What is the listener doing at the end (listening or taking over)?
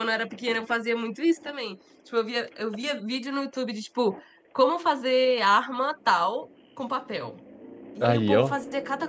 listening